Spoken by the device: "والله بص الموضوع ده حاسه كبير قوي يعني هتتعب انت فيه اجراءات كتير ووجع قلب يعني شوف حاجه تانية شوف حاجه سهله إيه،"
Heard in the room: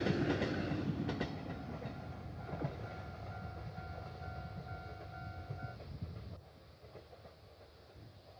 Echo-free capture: Yes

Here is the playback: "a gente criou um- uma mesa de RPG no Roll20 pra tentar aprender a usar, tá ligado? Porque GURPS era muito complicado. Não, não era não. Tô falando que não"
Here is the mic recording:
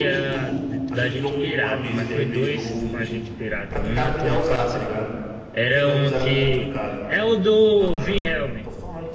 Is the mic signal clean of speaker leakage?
No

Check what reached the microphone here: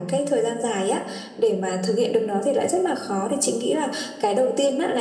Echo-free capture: No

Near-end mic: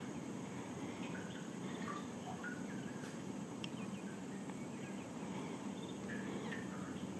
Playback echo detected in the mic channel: No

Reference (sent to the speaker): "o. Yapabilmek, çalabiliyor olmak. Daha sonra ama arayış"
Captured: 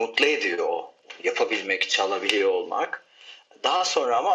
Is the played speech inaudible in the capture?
No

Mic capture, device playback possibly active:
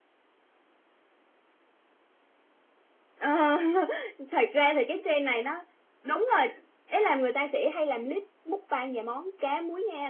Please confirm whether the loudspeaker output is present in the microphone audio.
No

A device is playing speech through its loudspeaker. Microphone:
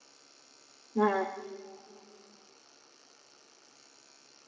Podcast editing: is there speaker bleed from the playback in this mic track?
No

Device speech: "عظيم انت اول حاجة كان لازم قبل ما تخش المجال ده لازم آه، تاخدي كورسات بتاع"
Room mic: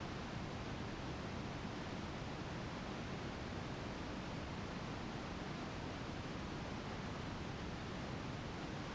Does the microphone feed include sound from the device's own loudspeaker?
No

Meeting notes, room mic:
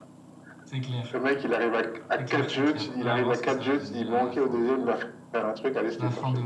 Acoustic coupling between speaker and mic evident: Yes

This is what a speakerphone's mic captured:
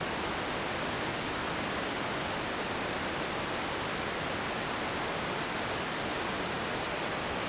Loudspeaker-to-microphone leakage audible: No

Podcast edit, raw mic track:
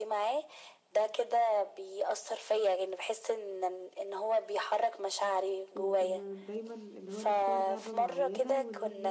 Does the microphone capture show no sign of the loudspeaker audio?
No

